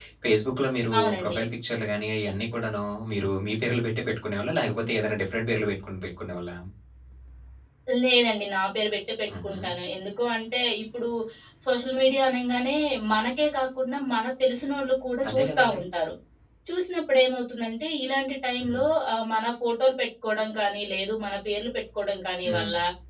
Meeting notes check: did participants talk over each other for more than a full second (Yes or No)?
No